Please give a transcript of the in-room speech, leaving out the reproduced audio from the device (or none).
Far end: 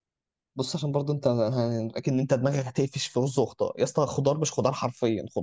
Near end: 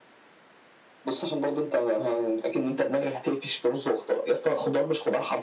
none